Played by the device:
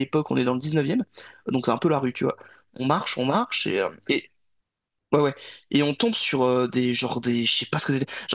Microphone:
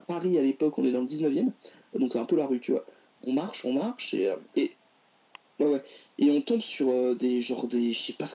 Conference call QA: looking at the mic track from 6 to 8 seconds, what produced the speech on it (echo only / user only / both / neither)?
echo only